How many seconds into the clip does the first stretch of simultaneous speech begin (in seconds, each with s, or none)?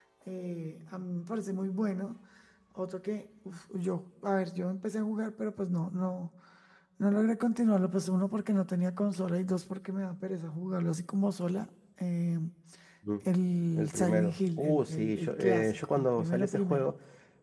13.7 s